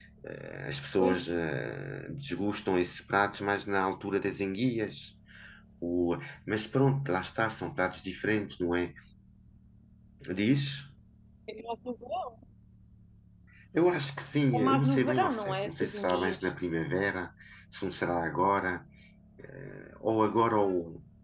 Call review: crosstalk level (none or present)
present